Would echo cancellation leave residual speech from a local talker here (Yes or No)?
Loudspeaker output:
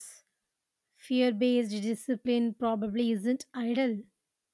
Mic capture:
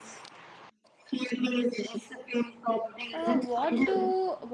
Yes